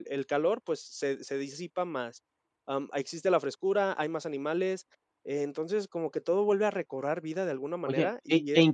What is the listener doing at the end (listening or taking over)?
taking over